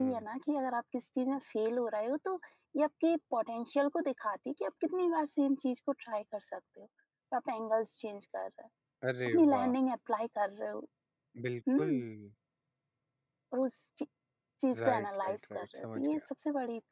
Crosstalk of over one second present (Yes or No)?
Yes